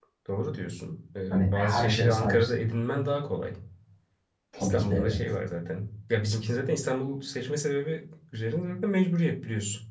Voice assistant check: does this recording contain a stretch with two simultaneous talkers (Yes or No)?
Yes